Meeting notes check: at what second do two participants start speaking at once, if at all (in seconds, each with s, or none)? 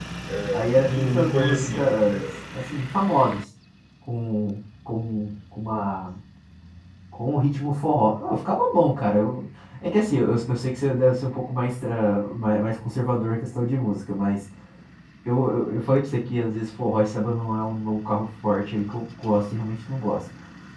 0.5 s